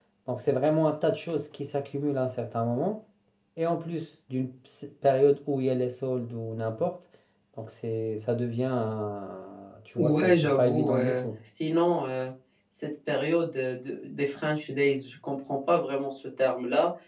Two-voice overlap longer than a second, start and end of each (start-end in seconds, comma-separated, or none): 10.0-11.2